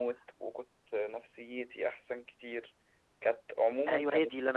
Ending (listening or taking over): taking over